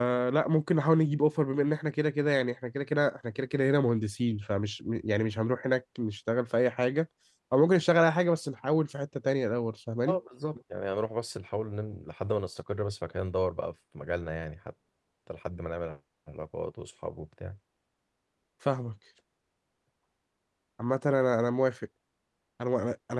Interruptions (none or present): none